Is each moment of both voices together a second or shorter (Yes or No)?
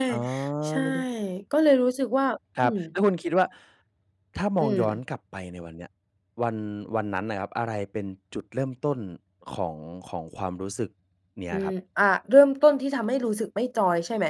Yes